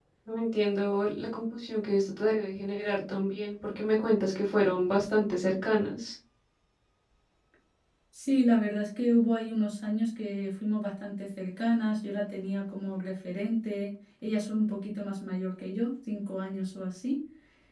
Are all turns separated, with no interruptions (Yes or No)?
Yes